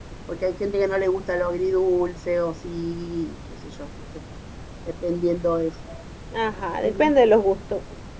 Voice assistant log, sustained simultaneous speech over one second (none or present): none